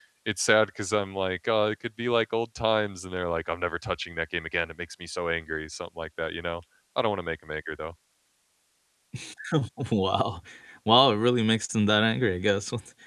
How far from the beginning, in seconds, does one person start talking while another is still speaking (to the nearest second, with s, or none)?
none